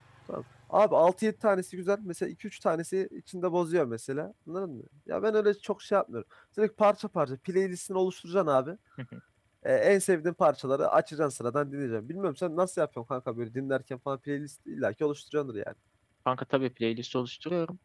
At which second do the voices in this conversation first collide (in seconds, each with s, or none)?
none